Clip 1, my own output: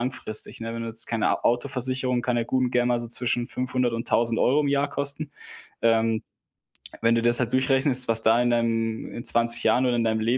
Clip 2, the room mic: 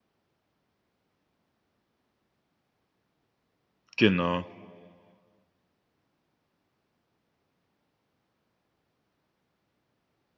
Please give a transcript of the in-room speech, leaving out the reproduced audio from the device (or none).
Genau.